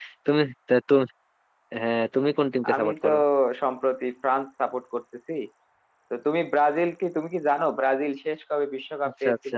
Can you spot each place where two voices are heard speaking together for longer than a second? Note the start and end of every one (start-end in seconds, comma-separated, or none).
none